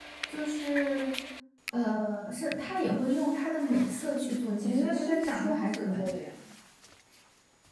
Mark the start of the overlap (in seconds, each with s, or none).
4.6 s